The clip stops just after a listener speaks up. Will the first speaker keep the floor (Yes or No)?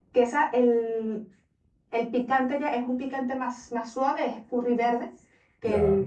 Yes